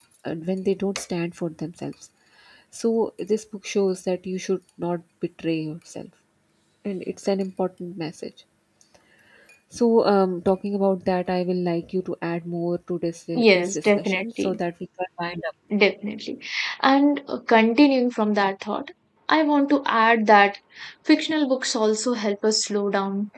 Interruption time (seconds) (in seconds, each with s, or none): 13.3 s